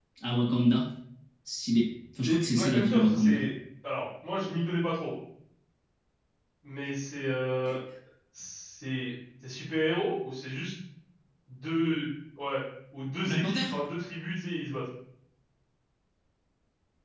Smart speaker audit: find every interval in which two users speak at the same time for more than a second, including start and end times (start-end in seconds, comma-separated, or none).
2.2-3.5